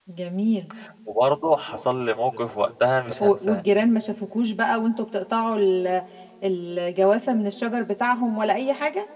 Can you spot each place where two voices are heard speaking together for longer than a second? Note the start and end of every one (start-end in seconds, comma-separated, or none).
none